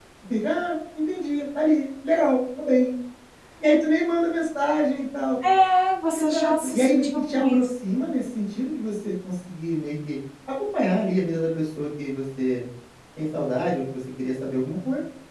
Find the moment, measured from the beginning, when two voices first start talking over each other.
6 s

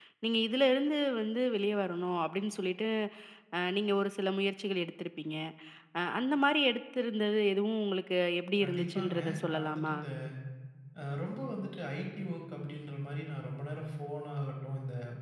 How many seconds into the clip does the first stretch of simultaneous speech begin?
9 s

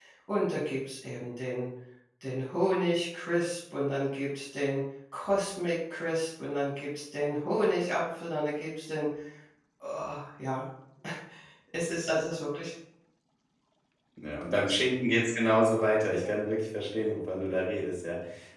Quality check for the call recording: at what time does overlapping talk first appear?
none

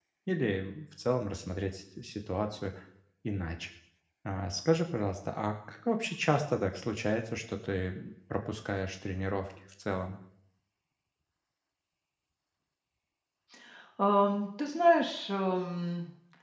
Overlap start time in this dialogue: none

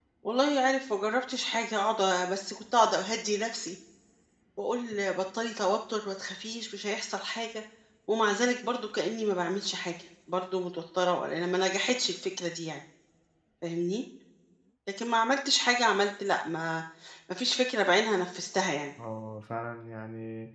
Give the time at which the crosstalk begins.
none

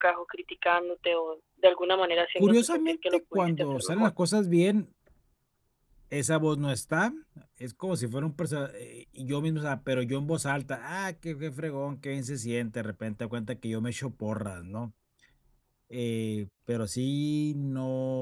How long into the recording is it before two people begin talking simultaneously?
2 s

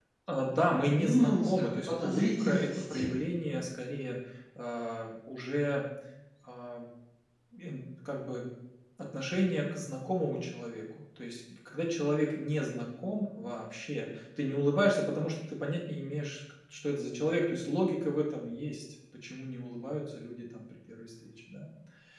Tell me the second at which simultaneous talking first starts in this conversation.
1 s

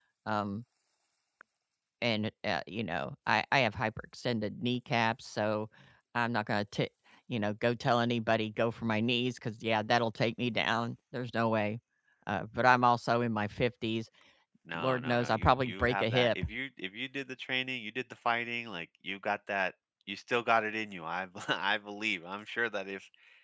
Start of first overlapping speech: 15 s

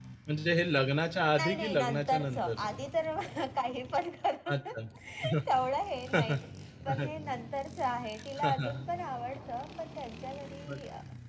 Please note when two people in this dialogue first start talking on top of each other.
1 s

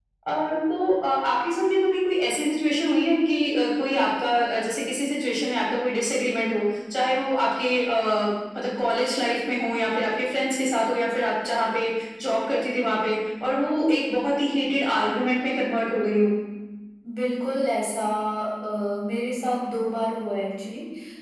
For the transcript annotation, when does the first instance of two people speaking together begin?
none

